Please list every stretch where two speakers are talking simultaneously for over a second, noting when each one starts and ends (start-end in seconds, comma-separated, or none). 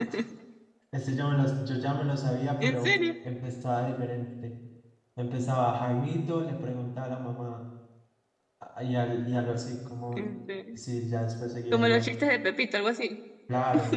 none